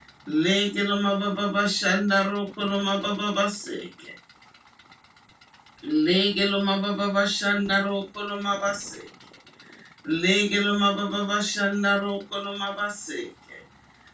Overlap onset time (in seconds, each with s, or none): none